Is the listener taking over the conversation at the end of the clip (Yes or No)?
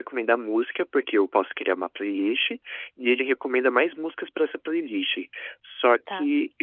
No